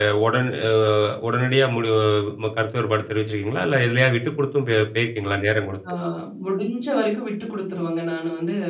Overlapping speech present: No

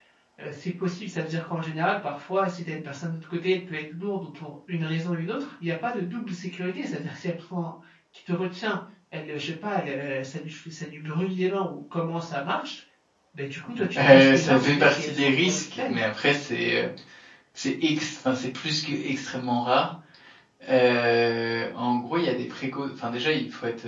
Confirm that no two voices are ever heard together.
No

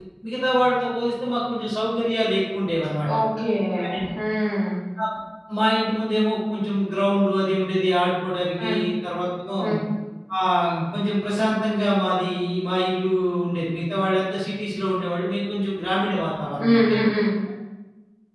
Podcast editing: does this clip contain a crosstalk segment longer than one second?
No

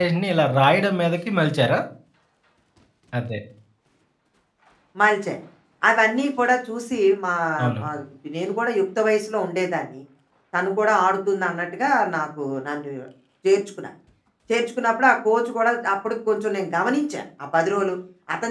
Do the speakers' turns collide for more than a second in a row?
No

